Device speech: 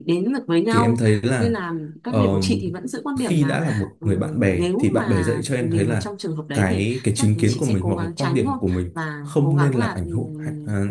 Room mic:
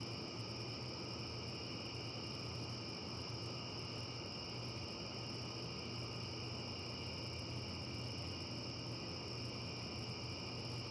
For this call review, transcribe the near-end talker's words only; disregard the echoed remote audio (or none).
none